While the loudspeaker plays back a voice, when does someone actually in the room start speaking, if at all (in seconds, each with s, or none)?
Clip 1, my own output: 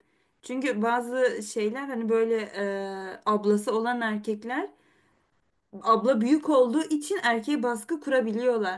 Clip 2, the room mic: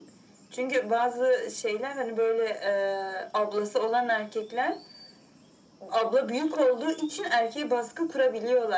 none